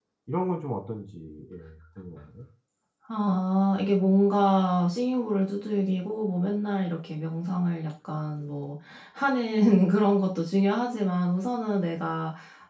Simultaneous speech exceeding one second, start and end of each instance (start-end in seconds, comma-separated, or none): none